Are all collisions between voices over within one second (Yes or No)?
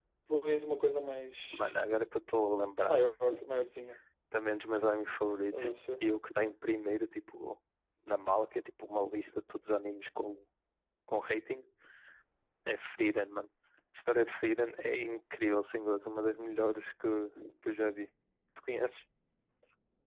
Yes